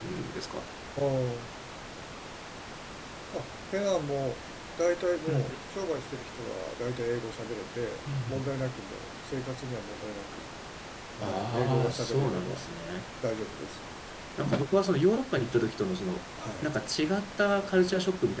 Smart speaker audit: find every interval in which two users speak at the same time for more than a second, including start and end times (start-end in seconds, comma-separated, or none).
11.2-12.6